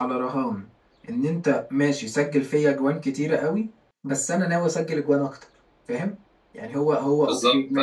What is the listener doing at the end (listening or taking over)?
listening